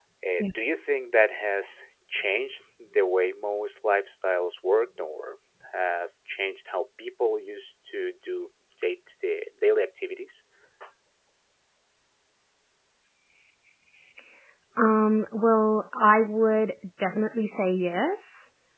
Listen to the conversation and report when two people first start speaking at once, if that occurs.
none

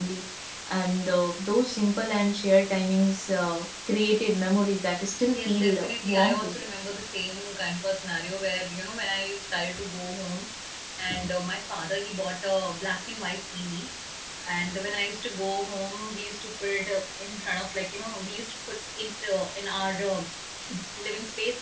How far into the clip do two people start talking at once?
5.2 s

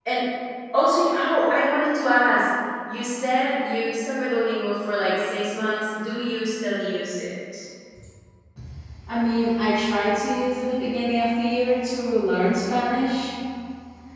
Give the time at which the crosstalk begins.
none

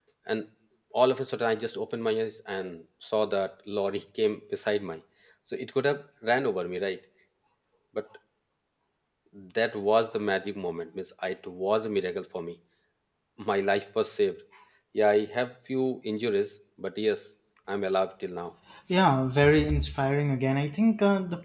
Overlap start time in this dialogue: none

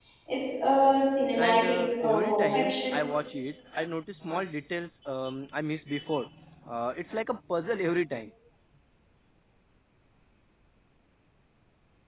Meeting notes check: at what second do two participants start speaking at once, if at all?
1.4 s

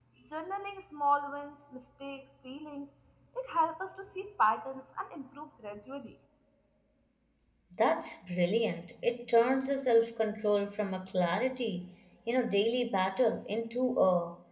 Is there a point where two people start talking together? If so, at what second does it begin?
none

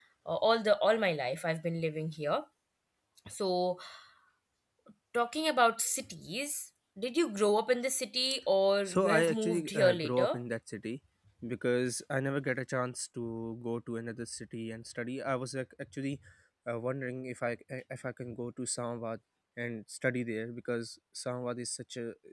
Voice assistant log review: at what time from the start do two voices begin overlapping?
8.8 s

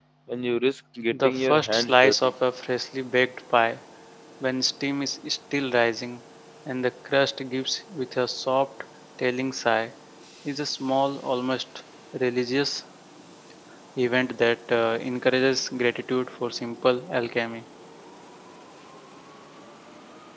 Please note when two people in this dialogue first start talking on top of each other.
1.1 s

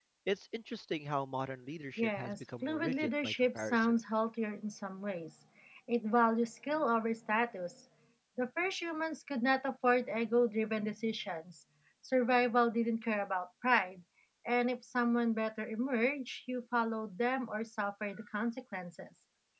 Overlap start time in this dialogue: 2.0 s

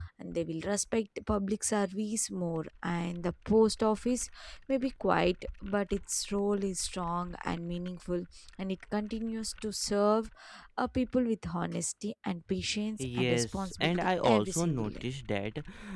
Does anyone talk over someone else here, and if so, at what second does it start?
13.0 s

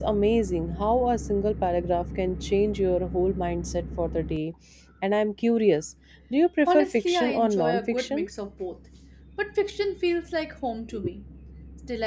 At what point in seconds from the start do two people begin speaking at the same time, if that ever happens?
6.6 s

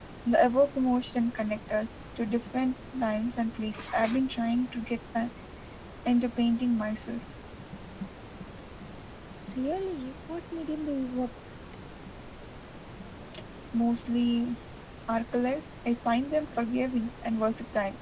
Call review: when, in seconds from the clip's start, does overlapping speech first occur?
none

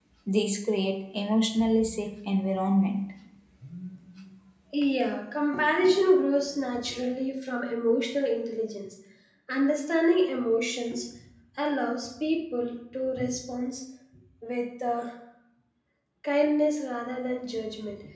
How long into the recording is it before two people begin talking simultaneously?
none

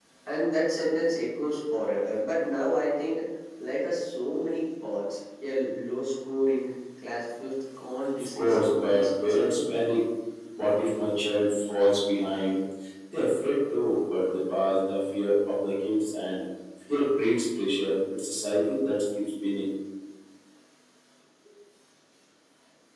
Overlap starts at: 8.2 s

